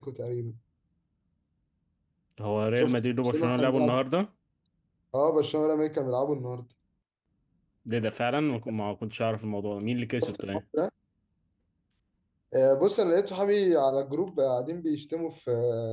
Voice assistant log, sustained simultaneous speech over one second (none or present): present